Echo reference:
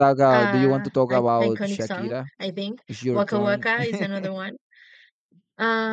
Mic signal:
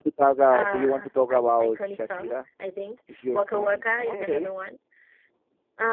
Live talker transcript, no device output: Okay.

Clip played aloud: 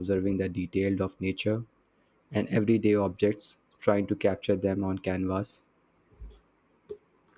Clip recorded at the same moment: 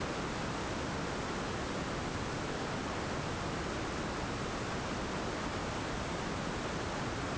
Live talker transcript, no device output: none

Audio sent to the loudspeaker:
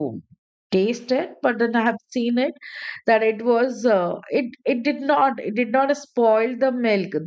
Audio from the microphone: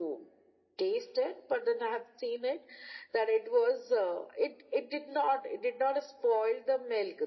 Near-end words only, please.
none

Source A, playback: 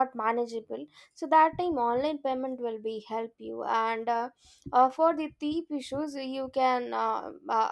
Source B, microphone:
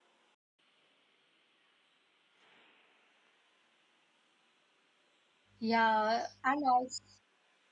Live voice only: Yeah, and also

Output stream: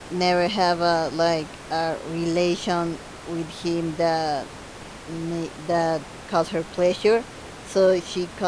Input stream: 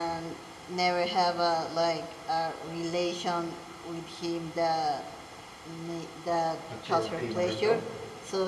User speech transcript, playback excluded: that your favorite of

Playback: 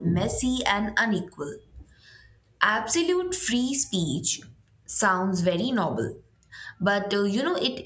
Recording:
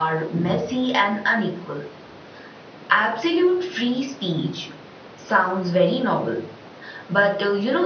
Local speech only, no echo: none

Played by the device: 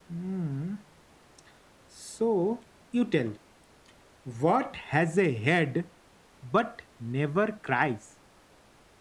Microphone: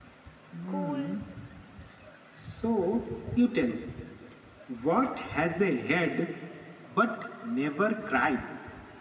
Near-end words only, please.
cool,

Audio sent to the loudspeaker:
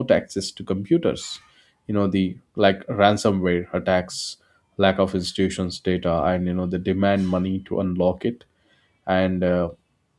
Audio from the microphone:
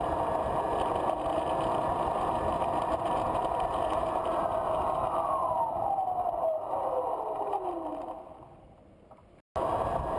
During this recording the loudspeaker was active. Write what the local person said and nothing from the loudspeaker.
none

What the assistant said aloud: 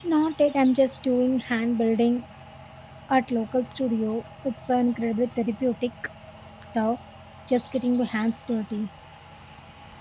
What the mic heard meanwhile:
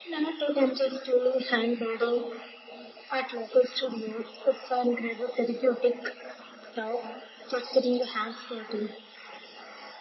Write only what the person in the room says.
none

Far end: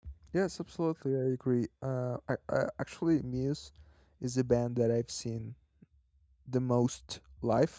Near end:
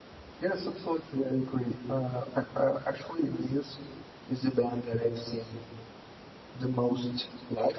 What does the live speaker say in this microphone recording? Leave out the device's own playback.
none

